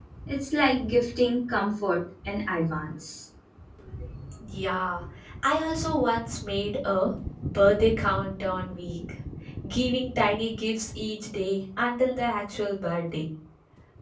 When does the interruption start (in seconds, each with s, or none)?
none